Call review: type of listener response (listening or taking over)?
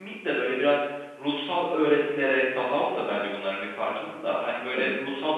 listening